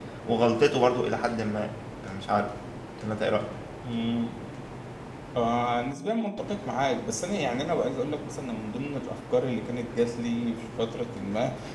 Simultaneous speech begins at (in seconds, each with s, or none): none